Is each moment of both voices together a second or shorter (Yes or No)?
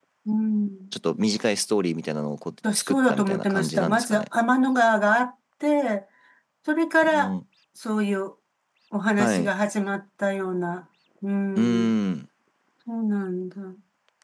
No